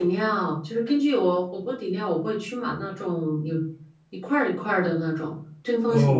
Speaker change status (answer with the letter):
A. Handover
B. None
A